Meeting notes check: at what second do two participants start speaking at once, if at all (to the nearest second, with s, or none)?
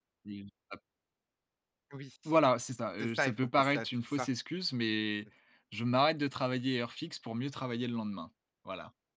3 s